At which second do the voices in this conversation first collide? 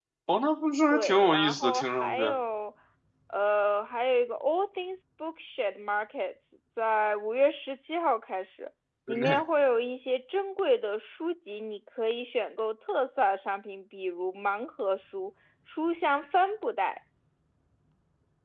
0.9 s

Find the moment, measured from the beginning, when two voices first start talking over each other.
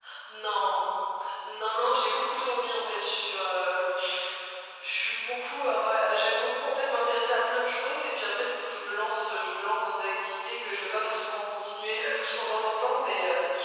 none

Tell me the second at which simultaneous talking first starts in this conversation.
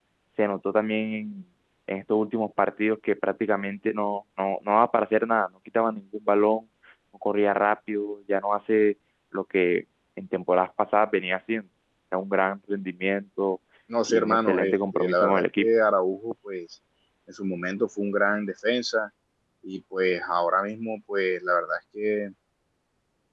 14.1 s

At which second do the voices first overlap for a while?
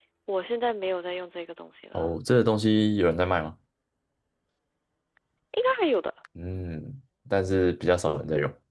none

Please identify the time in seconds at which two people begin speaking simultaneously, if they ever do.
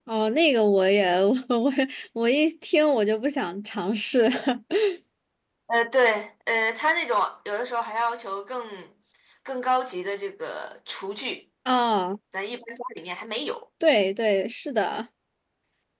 none

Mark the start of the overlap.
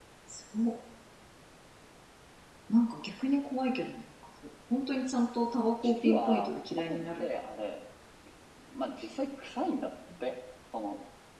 5.8 s

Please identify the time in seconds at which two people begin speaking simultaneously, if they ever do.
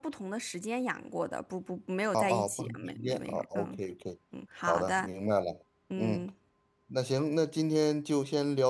2.1 s

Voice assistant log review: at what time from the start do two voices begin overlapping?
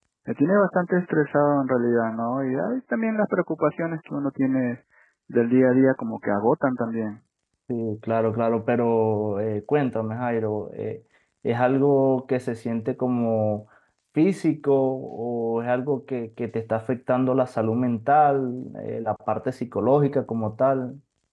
none

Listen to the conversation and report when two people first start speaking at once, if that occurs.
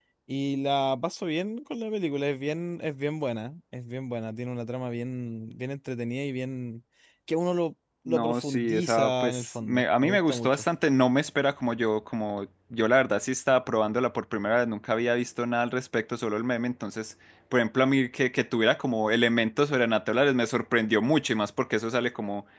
8.1 s

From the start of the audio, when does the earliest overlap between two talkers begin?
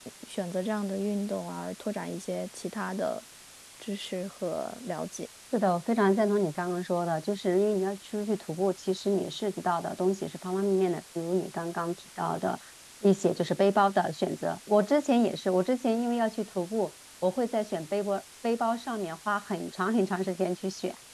none

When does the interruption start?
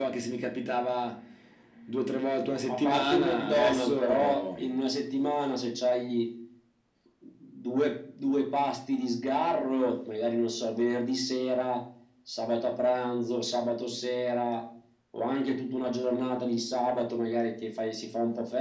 2.5 s

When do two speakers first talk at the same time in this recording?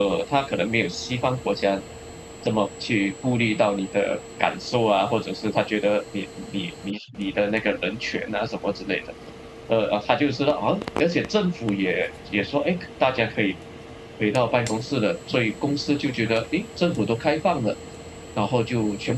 none

